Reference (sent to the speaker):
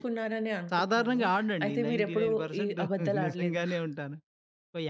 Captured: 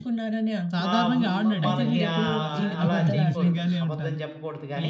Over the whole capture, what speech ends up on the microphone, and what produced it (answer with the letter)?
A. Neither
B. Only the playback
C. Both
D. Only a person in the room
C